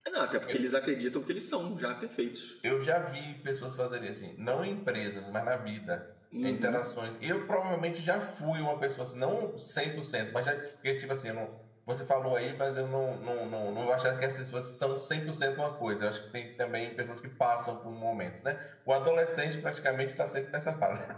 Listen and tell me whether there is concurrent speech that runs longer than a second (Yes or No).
No